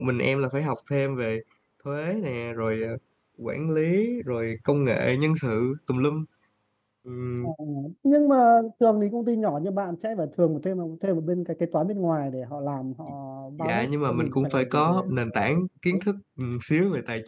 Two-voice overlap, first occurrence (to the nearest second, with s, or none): 14 s